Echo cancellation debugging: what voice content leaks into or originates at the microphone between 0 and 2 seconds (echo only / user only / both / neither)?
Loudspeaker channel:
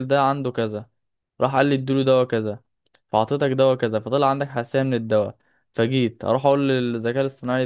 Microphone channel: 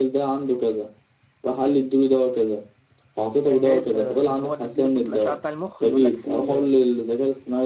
echo only